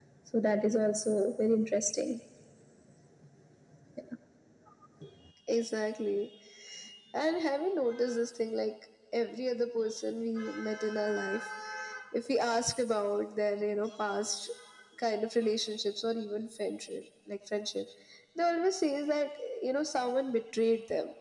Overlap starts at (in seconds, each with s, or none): none